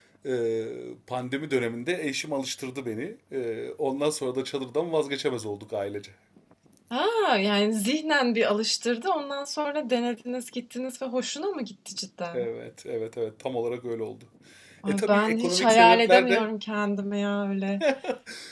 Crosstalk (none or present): present